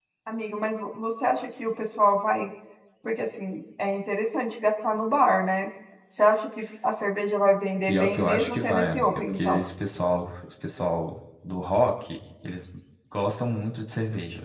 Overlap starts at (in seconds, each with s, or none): 7.9 s